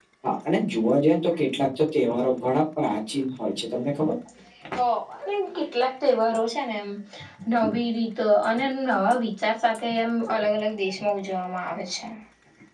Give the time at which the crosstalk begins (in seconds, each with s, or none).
none